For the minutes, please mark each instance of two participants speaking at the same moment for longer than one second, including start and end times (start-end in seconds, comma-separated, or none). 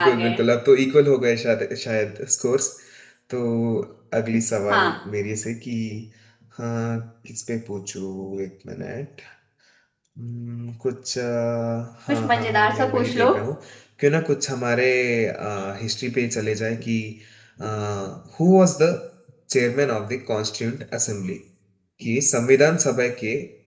12.1-13.3